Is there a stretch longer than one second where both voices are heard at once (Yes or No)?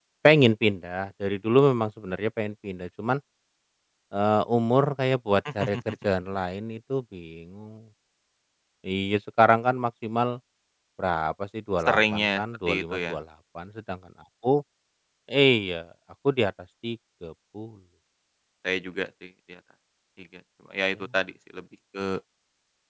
Yes